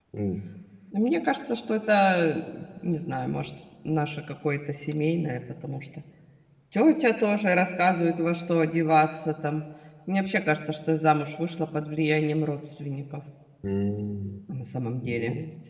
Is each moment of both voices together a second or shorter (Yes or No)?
Yes